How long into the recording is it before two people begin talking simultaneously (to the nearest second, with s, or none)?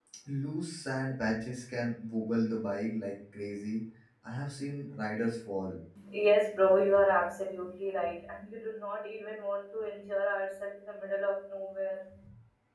none